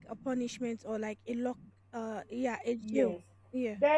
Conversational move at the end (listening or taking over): taking over